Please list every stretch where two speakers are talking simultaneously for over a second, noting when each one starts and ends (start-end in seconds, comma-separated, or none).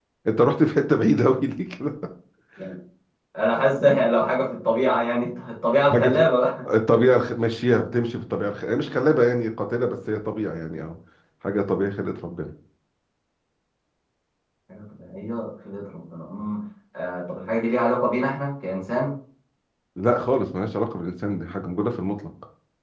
none